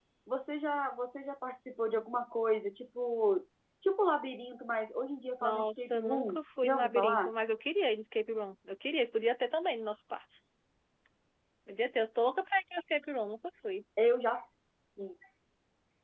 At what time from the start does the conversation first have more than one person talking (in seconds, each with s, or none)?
5.4 s